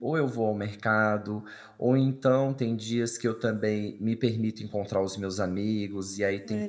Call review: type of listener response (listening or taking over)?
listening